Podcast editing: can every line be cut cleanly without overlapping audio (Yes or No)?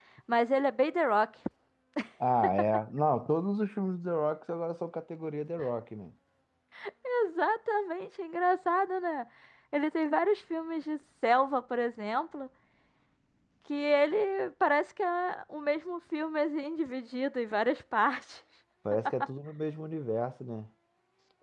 Yes